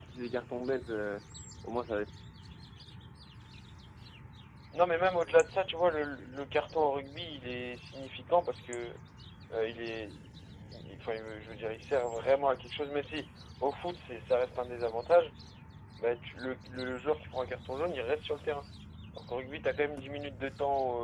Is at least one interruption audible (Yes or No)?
No